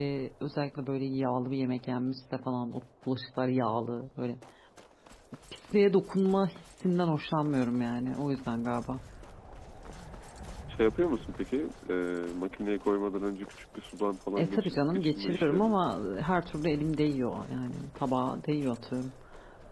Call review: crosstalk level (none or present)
present